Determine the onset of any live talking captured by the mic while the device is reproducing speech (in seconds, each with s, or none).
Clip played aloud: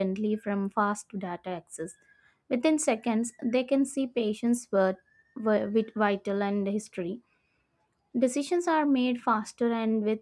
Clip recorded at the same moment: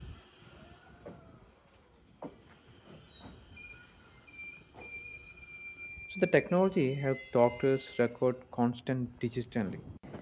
6.1 s